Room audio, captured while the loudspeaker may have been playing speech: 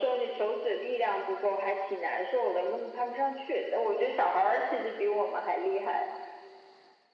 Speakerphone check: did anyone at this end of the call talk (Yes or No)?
No